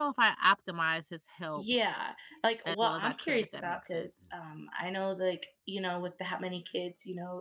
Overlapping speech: Yes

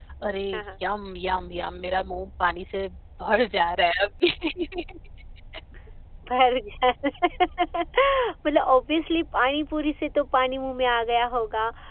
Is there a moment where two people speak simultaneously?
No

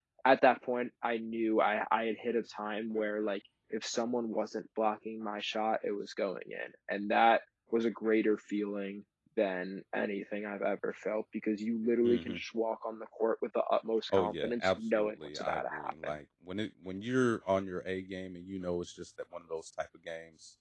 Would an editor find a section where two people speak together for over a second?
Yes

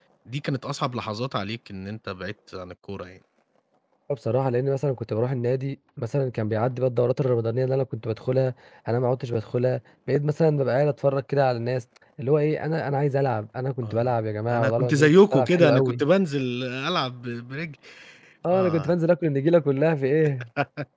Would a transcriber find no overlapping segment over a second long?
No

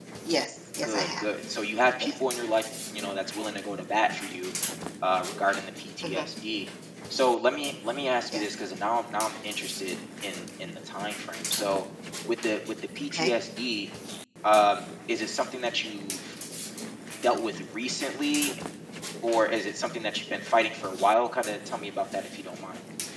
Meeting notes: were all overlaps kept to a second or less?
Yes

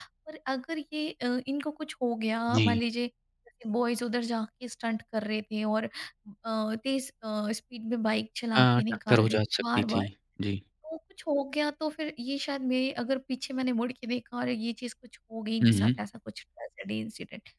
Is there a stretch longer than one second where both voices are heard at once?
Yes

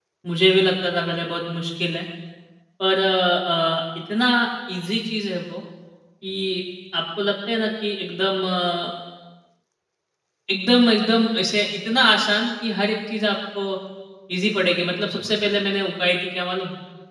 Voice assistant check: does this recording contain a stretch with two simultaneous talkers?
No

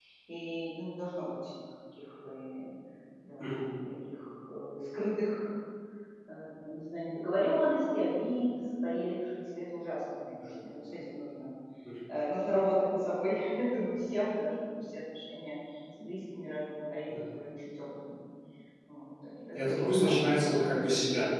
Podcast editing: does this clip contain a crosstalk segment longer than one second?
Yes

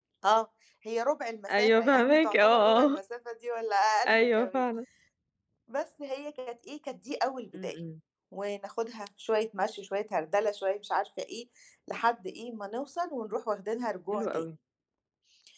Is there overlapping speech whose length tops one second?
Yes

